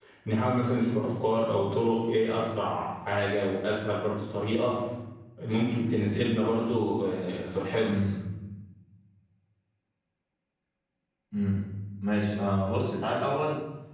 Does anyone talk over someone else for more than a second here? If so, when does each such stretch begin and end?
none

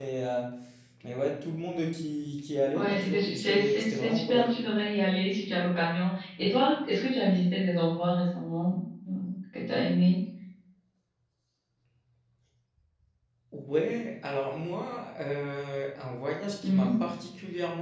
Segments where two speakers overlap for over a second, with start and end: 2.7-4.5

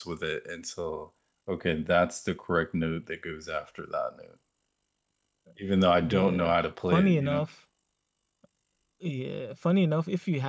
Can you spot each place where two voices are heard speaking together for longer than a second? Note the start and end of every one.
none

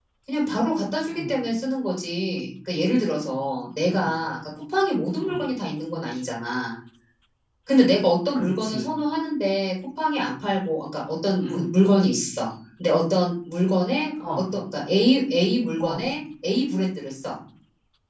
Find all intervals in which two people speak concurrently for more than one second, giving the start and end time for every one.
none

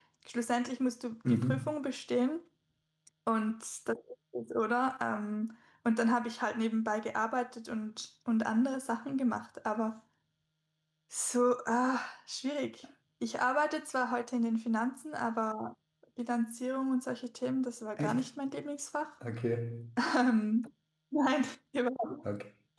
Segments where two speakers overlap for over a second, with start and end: none

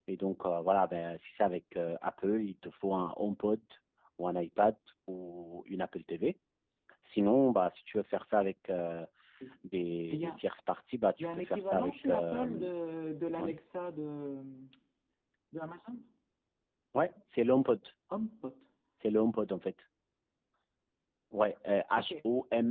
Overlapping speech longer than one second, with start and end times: 11.2-12.7

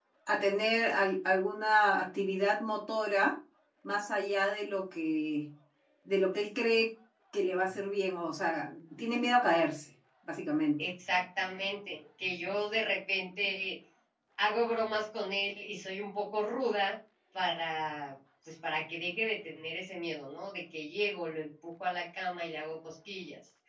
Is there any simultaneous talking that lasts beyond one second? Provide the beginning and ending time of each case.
none

